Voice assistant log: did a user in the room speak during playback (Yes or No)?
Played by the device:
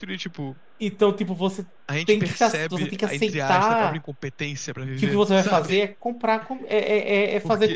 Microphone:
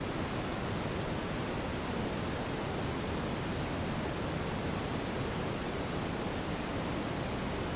No